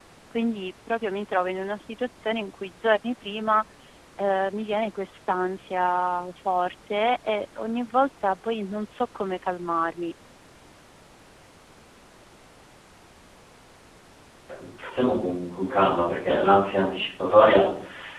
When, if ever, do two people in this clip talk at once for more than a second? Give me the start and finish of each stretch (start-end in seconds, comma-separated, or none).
none